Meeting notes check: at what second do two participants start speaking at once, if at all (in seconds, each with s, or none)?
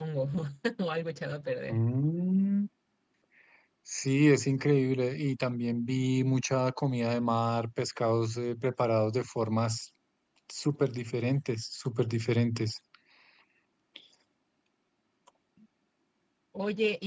none